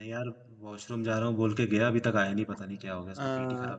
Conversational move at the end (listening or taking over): taking over